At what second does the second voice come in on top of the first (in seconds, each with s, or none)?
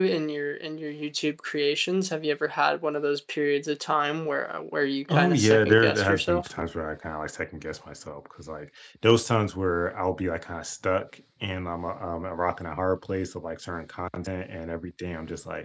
5.1 s